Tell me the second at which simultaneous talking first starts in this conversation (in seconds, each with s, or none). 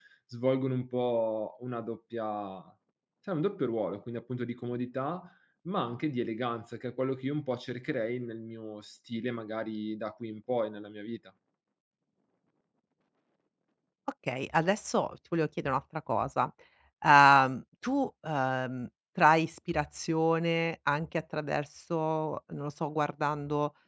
none